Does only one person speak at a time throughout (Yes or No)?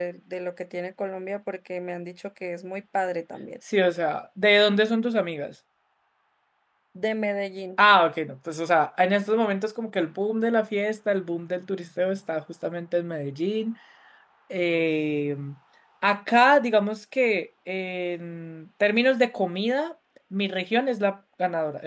Yes